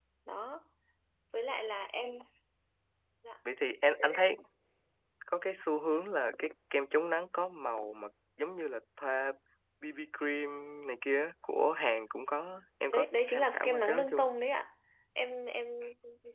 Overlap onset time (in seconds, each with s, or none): 12.9 s